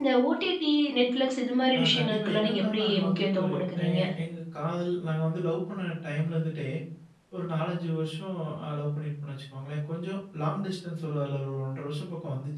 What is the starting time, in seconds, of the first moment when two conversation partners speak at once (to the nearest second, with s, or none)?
2 s